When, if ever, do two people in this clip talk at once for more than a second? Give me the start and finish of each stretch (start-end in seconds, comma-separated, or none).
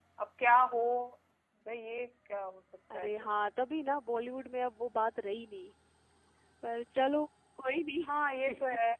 none